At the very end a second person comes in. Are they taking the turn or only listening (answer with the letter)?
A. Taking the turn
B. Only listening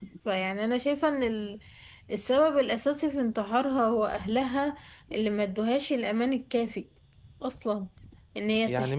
A